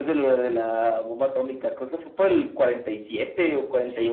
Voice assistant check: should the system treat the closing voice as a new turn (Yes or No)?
Yes